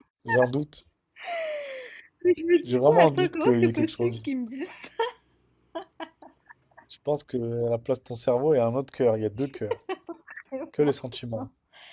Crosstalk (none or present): present